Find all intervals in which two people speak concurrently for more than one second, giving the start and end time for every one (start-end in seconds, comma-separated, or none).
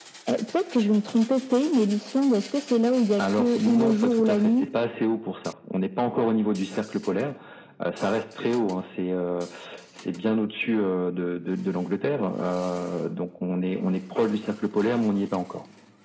3.2-4.7